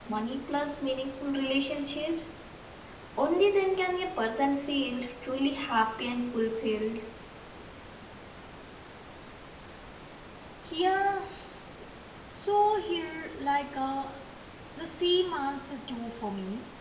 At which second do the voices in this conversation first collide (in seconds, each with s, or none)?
none